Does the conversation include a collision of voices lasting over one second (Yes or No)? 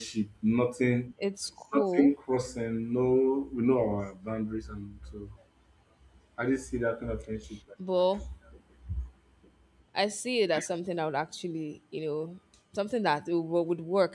No